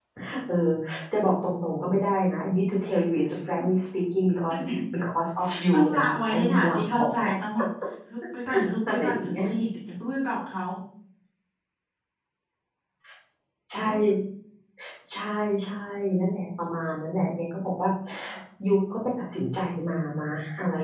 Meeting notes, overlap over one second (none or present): present